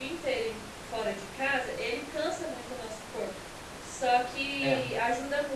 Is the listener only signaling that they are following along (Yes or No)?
Yes